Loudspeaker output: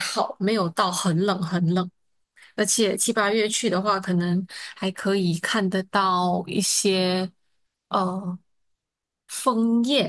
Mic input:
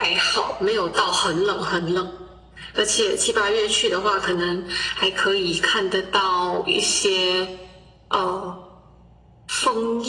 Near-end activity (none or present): none